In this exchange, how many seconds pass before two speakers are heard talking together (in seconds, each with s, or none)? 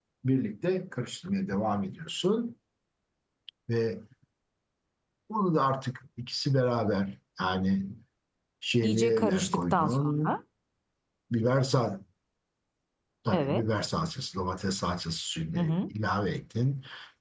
8.8 s